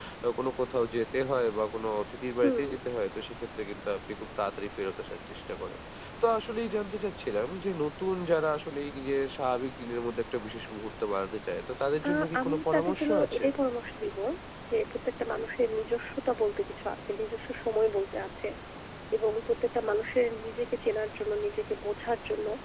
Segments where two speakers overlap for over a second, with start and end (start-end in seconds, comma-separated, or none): 12.1-13.4